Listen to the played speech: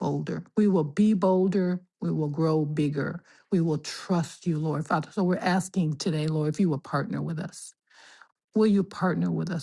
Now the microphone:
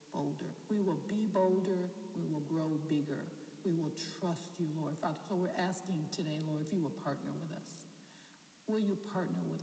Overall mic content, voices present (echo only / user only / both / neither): echo only